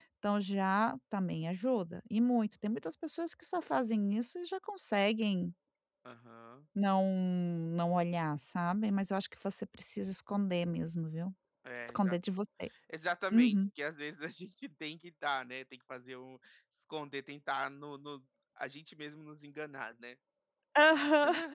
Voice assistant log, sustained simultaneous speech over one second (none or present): none